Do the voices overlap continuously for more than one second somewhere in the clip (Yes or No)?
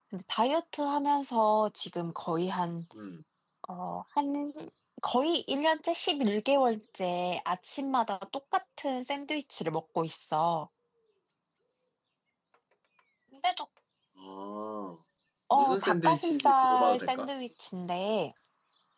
Yes